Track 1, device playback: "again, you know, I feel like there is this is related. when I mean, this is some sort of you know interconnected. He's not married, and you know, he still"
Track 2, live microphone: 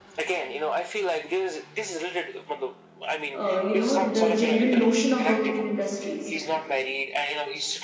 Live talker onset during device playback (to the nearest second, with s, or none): 3 s